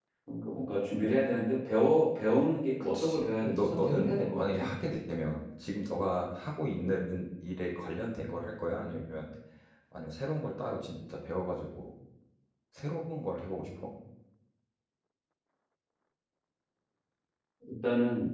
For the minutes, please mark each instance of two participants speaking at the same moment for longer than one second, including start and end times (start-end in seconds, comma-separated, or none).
3.0-4.7